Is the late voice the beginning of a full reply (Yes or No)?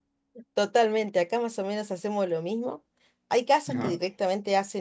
No